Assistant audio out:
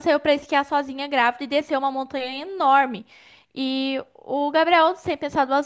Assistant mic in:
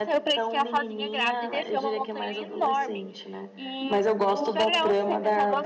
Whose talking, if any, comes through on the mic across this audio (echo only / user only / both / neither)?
both